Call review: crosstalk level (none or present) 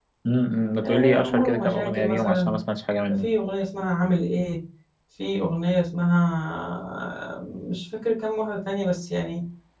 present